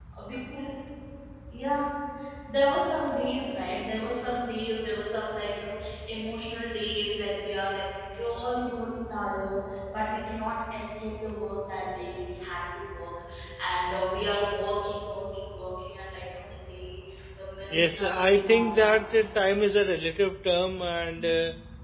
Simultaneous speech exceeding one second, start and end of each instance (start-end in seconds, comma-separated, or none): 17.7-19.1